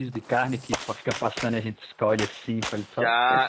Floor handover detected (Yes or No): Yes